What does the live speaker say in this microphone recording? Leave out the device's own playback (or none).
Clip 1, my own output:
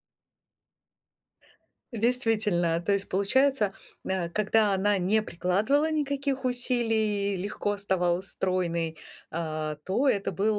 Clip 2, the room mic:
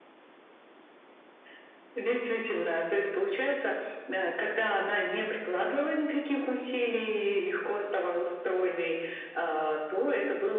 none